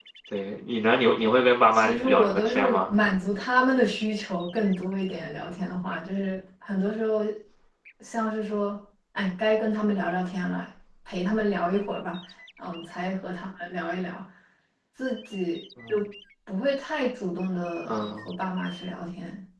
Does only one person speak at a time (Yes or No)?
No